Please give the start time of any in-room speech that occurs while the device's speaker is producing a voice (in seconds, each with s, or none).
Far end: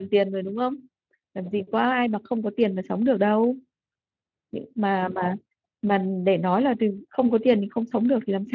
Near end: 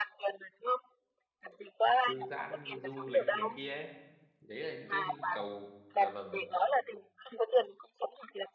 2.1 s